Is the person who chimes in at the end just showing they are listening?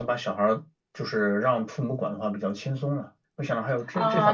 No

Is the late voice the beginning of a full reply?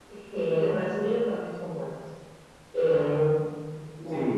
No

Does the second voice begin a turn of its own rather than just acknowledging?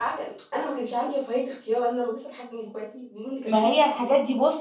Yes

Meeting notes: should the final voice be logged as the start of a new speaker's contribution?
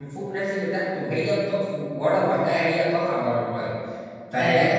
No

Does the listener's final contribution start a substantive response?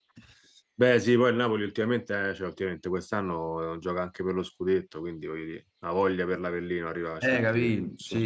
Yes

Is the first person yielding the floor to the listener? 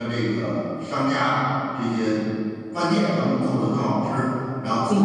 No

